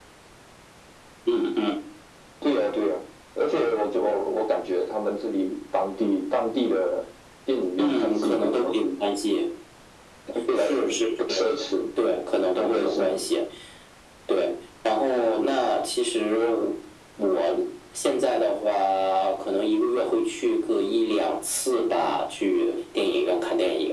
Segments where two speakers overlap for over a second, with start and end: 7.8-9.0

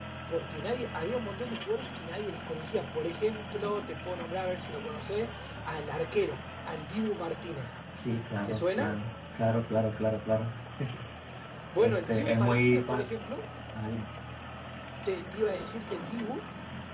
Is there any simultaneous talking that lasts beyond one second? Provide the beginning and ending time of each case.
11.8-13.1

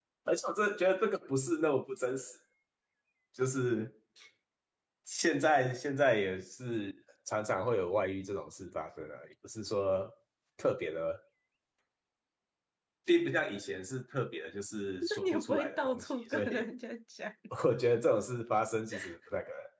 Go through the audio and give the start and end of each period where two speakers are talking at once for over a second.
15.0-16.6

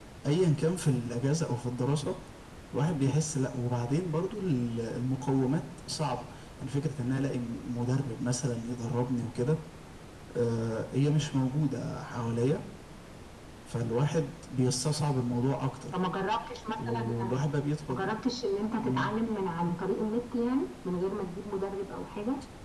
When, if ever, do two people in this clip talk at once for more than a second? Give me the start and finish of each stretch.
none

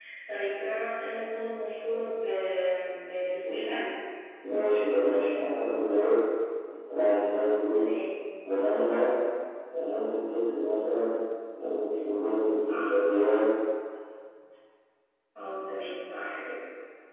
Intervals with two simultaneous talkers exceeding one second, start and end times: none

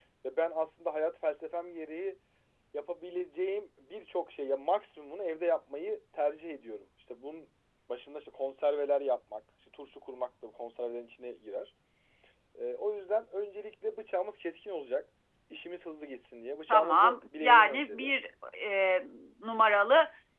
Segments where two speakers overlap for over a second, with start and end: 16.7-18.1

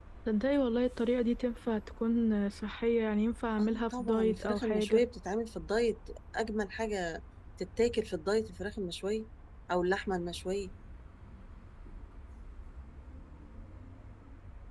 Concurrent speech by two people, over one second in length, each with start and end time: 3.6-5.0

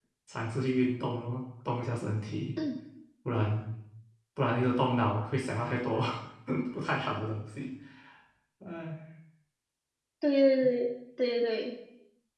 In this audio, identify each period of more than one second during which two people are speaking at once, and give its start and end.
none

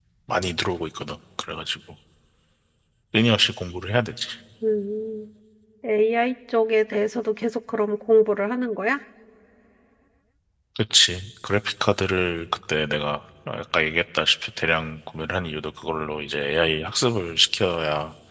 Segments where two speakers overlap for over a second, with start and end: none

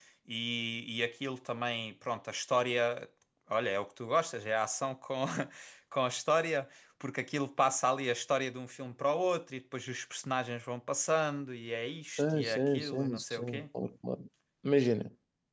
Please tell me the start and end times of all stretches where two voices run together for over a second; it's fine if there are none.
12.2-13.6

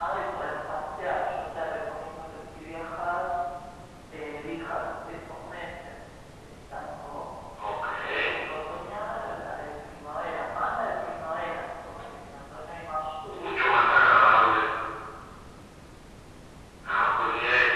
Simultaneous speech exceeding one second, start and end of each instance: 13.3-14.6

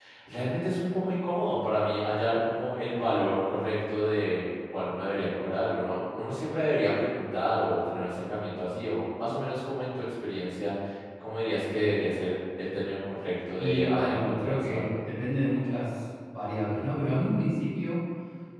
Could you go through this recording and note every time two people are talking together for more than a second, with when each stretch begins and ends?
13.6-14.9

